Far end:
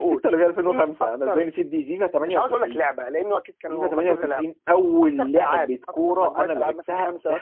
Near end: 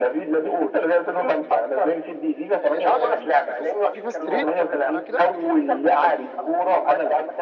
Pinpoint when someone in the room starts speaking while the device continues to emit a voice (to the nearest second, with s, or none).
3 s